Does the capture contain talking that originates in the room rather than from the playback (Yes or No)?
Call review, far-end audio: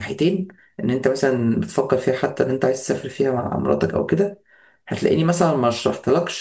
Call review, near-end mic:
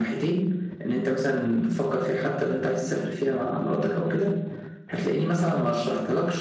No